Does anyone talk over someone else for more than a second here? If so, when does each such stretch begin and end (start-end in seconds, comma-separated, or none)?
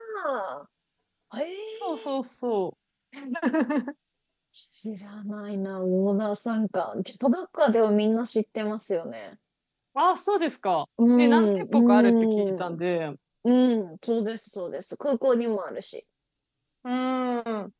11.2-12.8